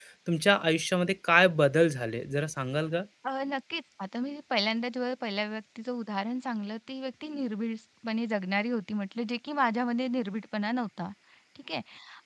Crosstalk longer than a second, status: none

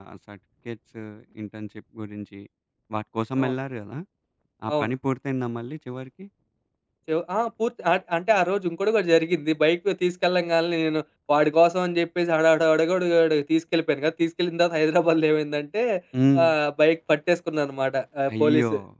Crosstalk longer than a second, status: none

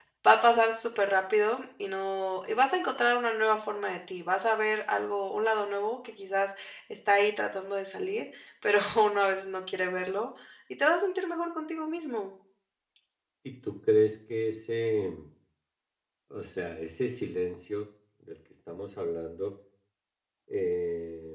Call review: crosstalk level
none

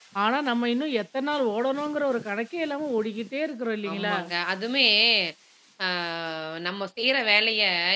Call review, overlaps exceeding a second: none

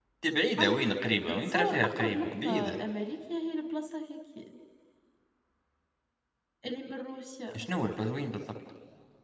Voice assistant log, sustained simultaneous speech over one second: present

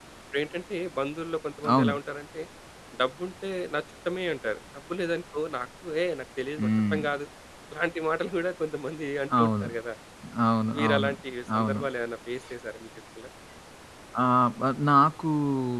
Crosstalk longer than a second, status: none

